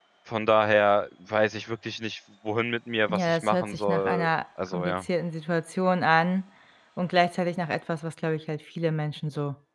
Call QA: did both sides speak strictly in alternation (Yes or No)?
No